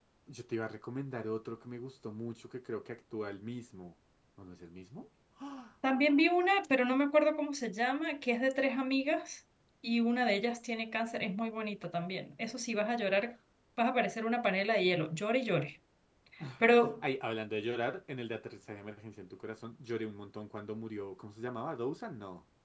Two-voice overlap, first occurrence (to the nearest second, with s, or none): none